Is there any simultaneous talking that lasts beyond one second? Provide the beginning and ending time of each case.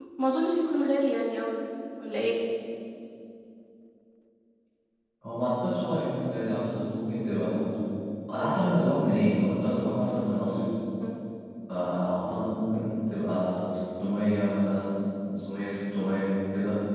none

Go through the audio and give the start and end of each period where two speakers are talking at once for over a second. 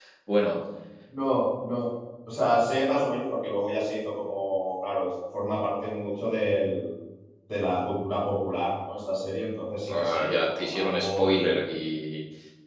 9.9-11.3

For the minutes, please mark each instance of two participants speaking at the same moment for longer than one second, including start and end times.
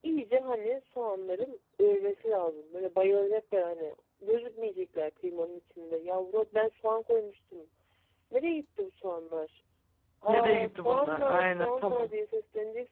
10.3-12.1

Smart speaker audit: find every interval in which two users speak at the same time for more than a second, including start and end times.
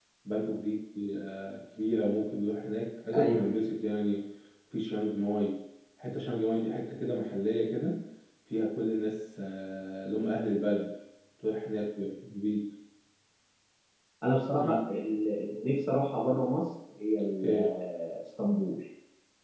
none

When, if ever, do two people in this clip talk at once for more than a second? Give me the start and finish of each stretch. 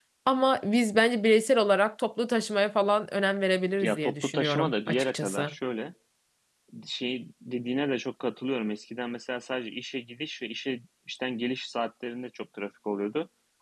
3.8-5.5

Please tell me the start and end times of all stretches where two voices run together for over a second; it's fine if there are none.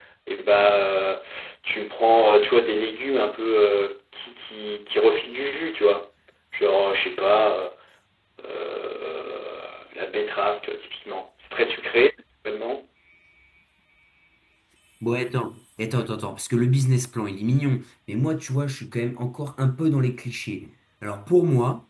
none

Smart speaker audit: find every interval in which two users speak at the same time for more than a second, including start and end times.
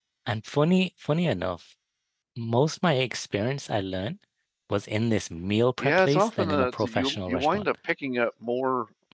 5.8-7.7

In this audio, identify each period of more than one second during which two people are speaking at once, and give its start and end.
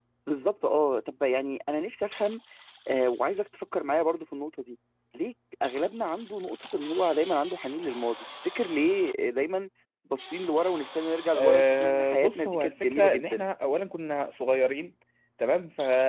11.4-13.4

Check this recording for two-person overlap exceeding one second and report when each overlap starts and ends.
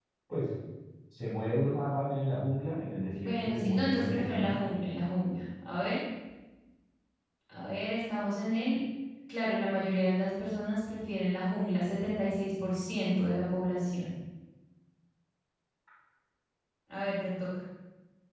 3.2-4.6

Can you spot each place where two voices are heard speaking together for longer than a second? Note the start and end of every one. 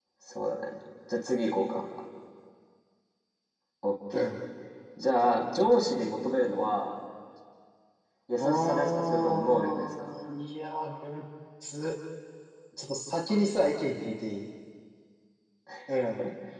8.4-10.1

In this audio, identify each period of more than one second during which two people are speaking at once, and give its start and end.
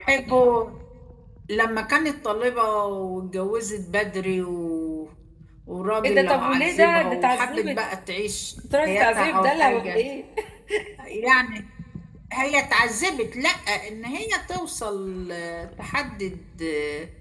6.0-7.7, 8.8-10.1

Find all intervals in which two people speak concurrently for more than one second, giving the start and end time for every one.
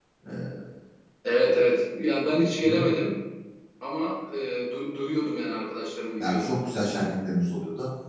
none

